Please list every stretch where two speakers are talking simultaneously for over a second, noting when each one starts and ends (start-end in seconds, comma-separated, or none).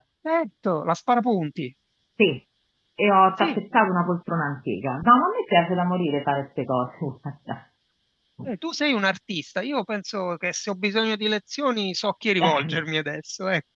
none